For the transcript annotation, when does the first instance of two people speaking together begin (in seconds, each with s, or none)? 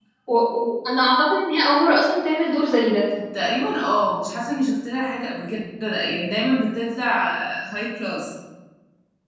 none